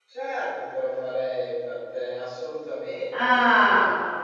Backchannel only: No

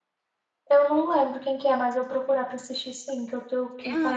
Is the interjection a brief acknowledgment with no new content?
No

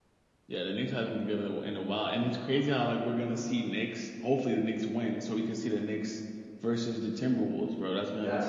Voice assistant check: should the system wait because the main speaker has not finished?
No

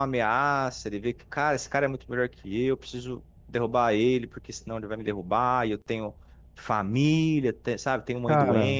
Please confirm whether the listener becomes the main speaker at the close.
No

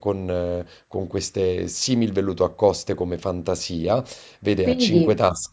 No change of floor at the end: Yes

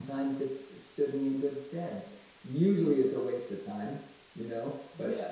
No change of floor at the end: No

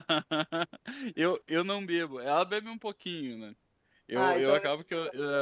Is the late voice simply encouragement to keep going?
Yes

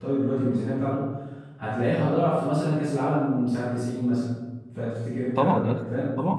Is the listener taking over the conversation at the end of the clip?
Yes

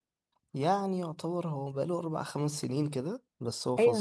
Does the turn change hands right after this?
Yes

